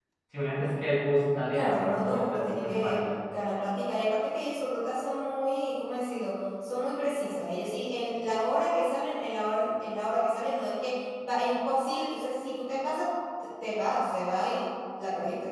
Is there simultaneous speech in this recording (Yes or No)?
Yes